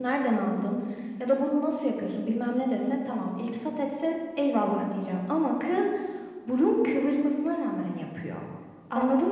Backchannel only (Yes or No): Yes